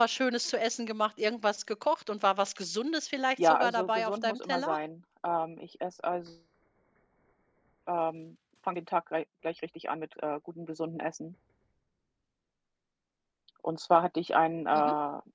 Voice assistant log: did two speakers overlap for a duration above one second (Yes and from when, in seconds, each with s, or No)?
Yes, from 3.4 s